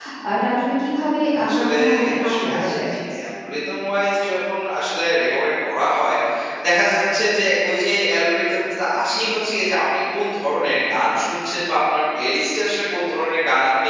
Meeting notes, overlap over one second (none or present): present